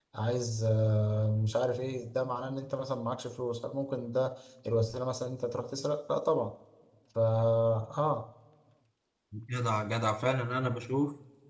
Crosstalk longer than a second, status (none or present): none